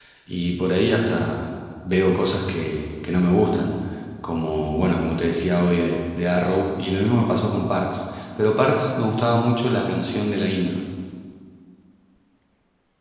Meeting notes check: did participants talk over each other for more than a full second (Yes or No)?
No